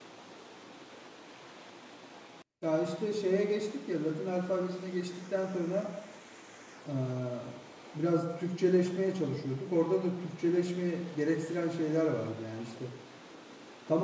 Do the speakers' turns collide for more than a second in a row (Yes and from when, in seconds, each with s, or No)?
No